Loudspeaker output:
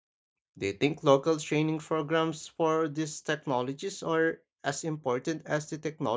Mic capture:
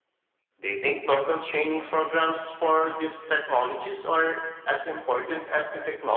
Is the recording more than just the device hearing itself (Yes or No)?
No